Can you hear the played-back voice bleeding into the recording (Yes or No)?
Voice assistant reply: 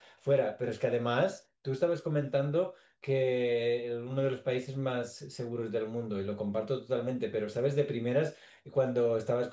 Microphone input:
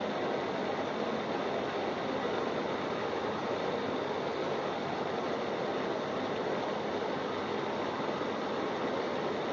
No